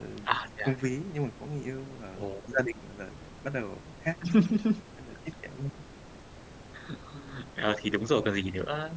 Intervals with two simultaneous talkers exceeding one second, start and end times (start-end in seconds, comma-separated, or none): none